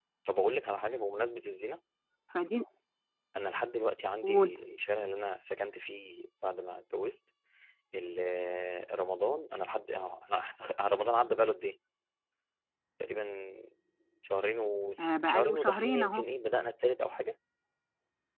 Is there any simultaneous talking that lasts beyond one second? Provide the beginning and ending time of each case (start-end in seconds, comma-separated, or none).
15.0-16.2